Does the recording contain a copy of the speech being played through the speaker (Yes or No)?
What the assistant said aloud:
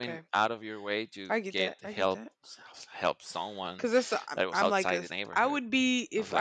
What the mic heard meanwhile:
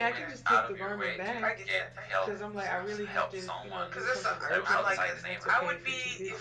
Yes